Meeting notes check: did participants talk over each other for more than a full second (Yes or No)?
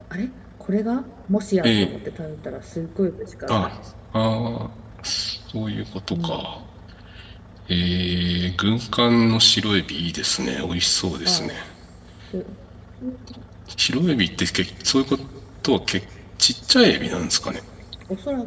No